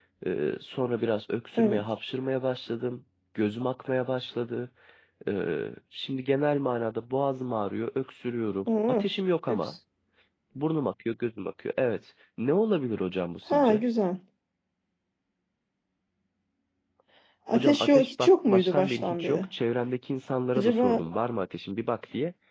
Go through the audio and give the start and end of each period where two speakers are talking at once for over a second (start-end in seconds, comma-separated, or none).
17.5-19.4